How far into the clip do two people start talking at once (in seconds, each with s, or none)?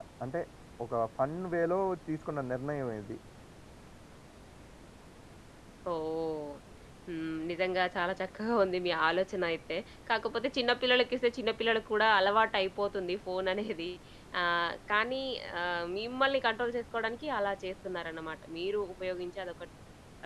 none